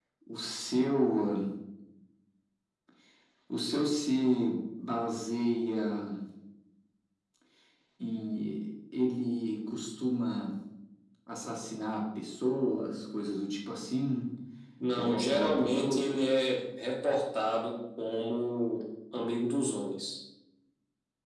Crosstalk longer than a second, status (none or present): present